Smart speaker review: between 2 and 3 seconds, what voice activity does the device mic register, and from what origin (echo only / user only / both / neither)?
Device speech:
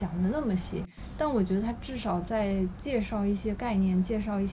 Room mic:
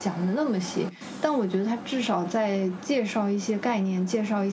echo only